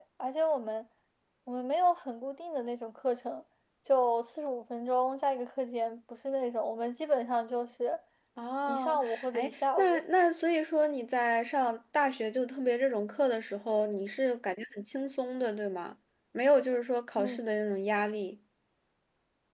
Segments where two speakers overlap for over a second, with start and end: 8.7-10.0

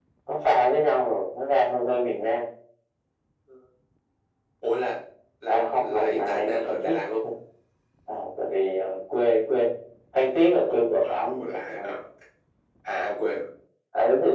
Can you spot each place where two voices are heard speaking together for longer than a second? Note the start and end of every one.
5.5-6.9, 10.7-11.9

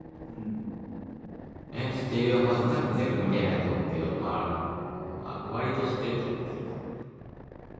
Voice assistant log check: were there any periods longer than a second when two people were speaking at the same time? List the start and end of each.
2.1-3.6

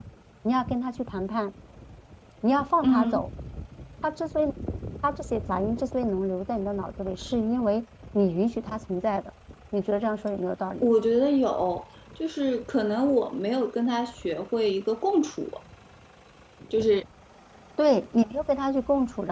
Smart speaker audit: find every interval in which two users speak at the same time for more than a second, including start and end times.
none

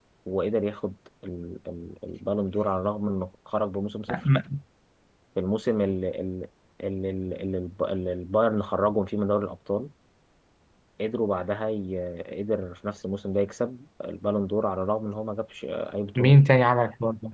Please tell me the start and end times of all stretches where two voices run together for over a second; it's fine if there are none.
none

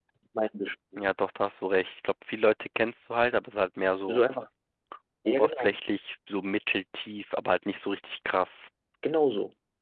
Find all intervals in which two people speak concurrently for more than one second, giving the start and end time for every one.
none

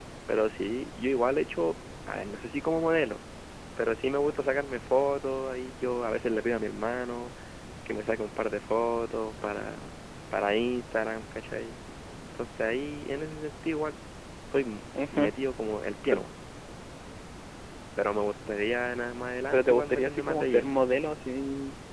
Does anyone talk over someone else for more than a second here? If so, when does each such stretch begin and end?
19.5-20.7

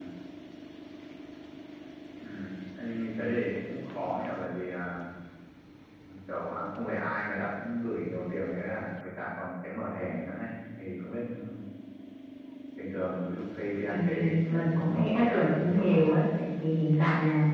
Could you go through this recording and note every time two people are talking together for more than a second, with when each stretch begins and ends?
13.9-16.0

